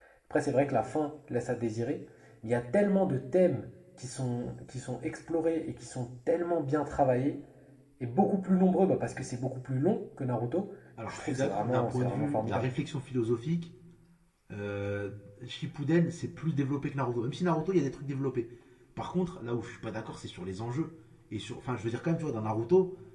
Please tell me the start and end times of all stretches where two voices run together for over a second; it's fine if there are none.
11.1-12.7

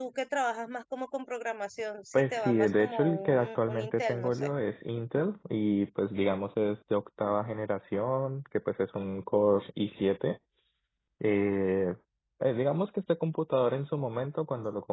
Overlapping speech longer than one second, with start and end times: 2.1-4.5

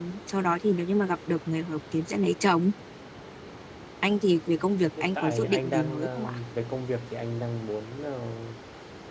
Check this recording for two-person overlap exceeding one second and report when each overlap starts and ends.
5.0-6.4

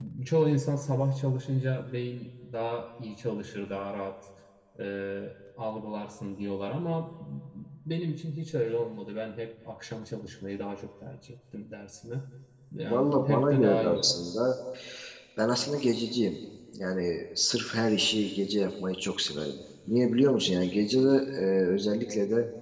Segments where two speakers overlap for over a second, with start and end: 12.8-14.1

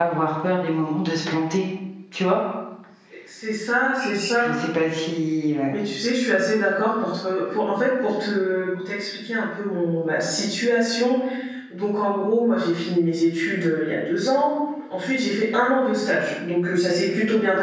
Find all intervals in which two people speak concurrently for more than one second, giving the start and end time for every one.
none

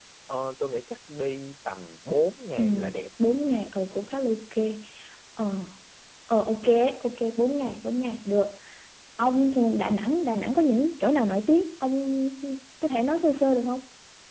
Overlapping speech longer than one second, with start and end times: none

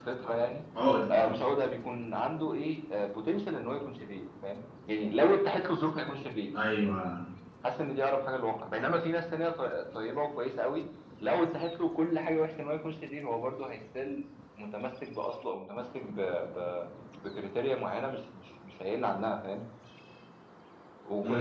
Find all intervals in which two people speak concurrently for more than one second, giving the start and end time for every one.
none

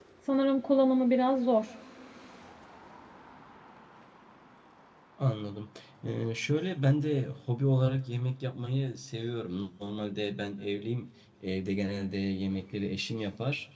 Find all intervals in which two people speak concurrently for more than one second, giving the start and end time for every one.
none

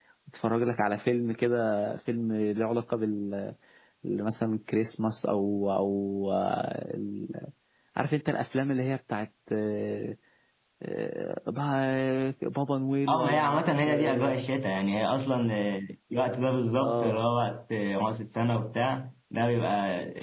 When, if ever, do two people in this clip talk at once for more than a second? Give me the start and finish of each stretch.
13.1-14.4

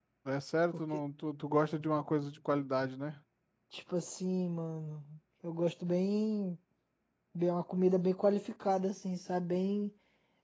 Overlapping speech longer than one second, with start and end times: none

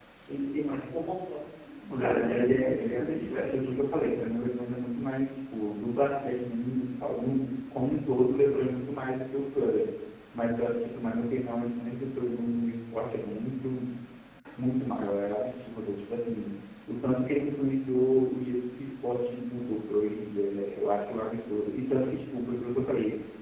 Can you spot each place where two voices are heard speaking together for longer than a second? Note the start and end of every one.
1.9-3.9

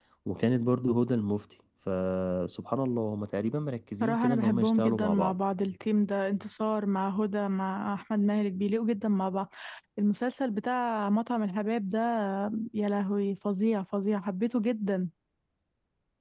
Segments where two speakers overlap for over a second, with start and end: 4.0-5.3

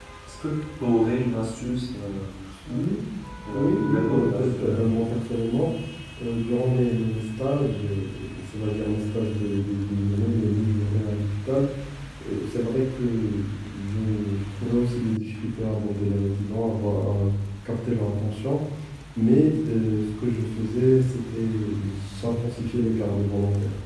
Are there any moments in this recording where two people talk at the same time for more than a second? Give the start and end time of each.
3.5-4.8

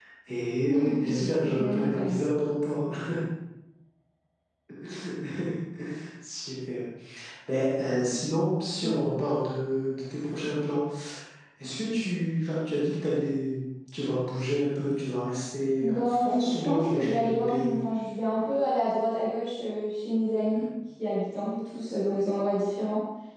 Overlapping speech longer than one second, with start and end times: 0.6-2.2, 15.8-17.7

